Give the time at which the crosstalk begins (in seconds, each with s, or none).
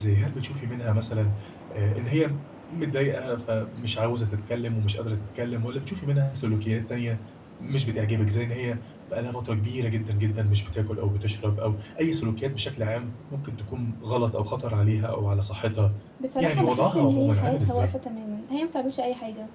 16.4 s